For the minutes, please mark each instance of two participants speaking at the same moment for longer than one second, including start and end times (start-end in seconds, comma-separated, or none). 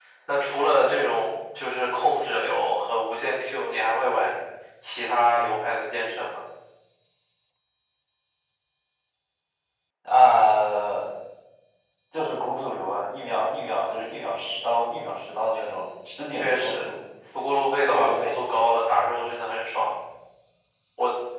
none